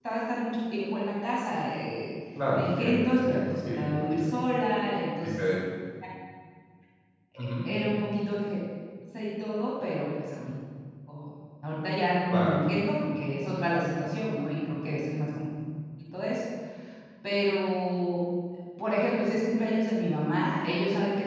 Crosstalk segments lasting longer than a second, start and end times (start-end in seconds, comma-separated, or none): 2.5-4.3